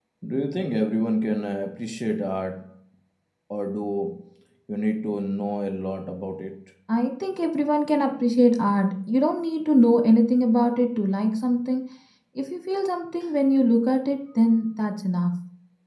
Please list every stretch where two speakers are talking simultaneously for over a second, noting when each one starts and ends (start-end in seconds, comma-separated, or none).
none